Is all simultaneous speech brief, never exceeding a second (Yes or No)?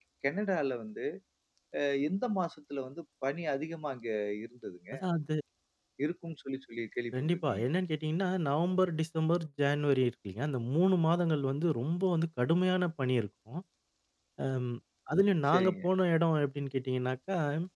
Yes